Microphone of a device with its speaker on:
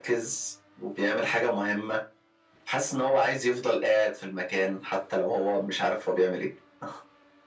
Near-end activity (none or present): none